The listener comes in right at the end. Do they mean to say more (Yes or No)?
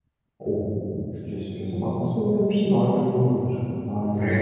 Yes